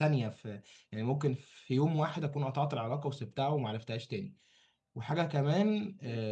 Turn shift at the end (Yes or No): No